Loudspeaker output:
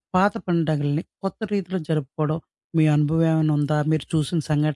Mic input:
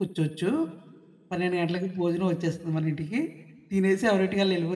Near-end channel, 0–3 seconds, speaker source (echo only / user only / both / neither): user only